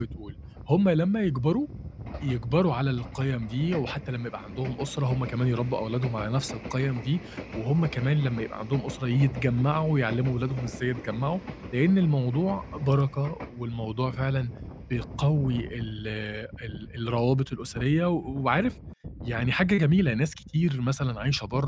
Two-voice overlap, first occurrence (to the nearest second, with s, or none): none